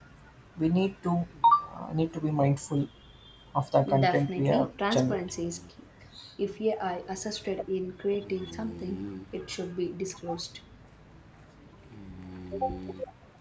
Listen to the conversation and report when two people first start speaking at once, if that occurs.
3.9 s

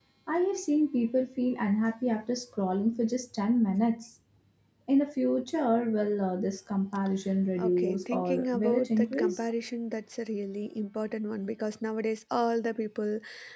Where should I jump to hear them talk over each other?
7.6 s

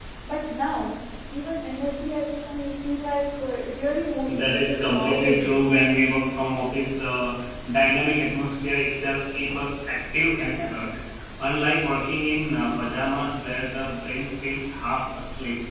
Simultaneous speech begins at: 4.3 s

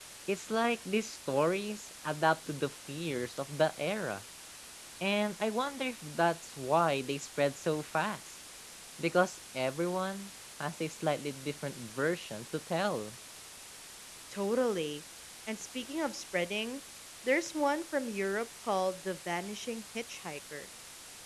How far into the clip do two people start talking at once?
none

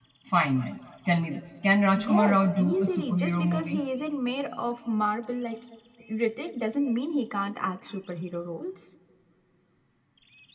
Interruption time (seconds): 2.0 s

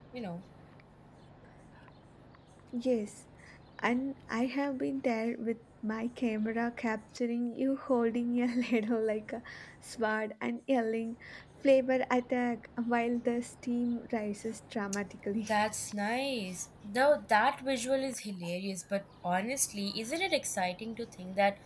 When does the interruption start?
none

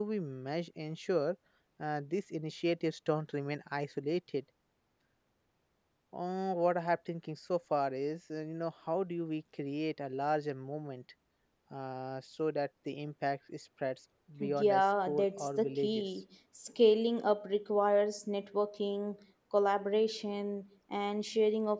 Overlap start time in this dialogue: 14.4 s

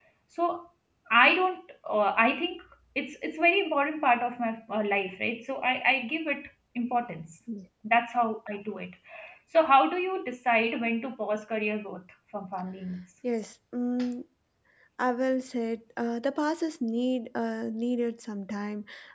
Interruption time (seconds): none

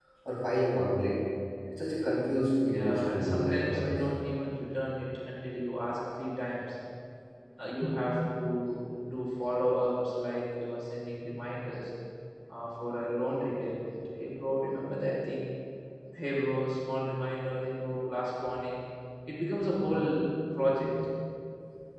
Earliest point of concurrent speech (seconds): 2.7 s

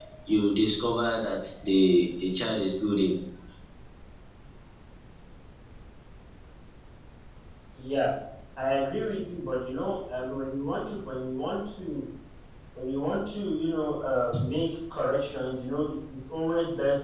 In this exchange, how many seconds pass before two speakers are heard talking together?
none

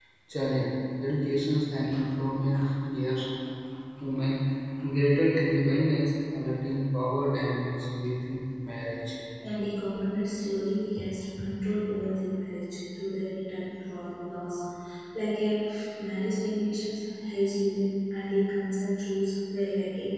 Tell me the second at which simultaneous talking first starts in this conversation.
none

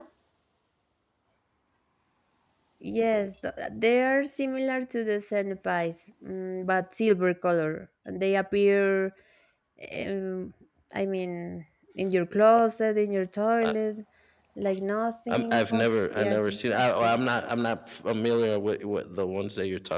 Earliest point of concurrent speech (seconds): 15.3 s

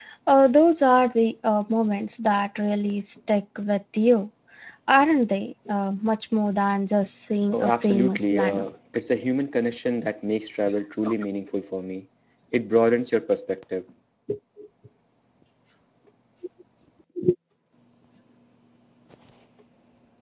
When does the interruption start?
7.5 s

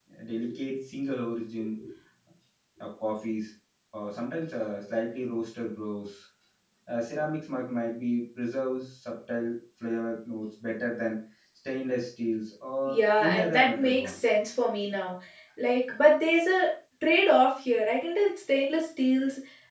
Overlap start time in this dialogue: 12.8 s

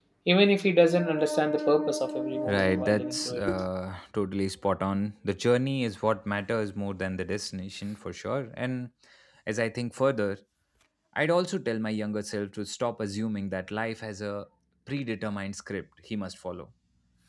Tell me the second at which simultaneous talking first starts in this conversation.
2.5 s

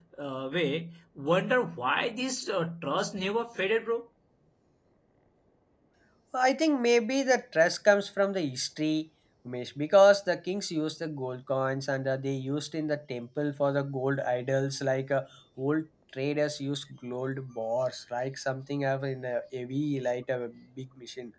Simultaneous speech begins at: none

